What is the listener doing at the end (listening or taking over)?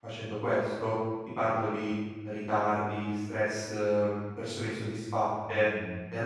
listening